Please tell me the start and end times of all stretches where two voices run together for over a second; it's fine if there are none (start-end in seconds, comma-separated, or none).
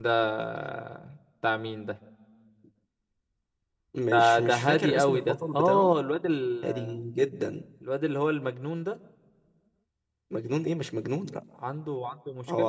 4.1-5.9